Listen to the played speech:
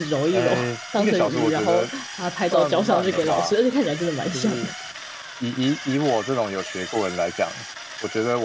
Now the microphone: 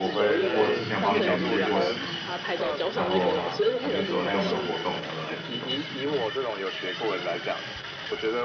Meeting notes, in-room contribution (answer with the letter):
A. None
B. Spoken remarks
B